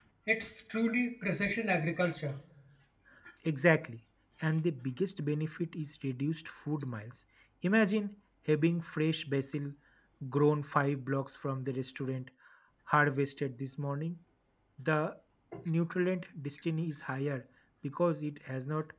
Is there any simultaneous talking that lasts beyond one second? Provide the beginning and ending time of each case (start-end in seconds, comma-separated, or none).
none